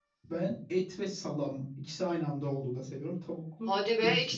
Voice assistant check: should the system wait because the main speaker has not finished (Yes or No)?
No